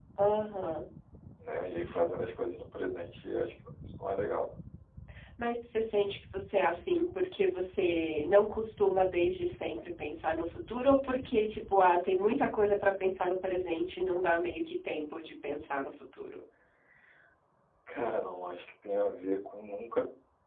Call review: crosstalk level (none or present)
none